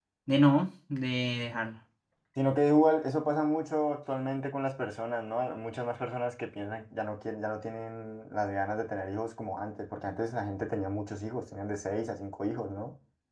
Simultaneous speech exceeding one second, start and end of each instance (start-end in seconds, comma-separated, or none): none